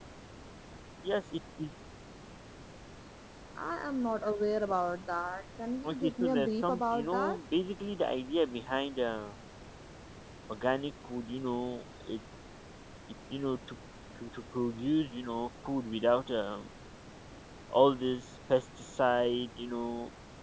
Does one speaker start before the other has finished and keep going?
Yes, from 5.8 s

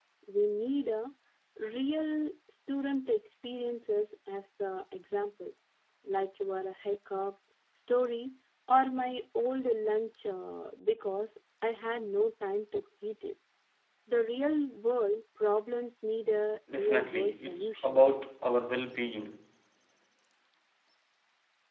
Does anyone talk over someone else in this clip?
Yes, from 16.7 s

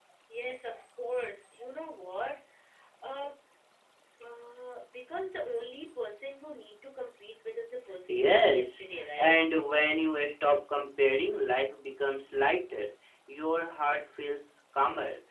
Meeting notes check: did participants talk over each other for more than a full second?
Yes, from 8.1 s

